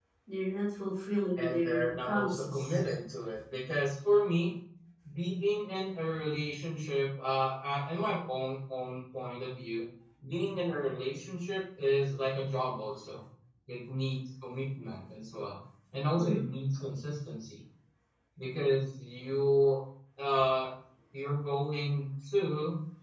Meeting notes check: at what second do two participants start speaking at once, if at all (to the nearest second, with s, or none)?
1 s